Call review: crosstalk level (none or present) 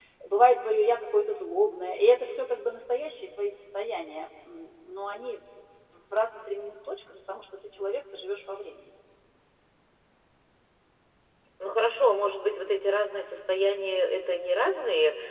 none